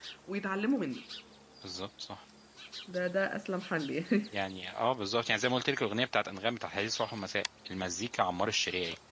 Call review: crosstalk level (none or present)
none